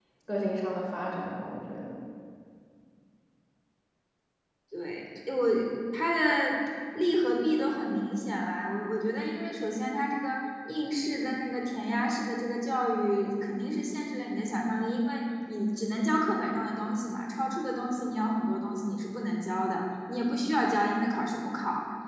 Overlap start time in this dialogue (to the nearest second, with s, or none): none